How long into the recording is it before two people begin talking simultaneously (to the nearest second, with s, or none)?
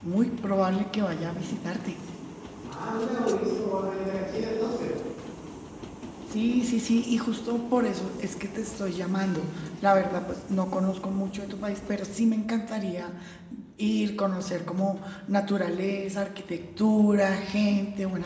none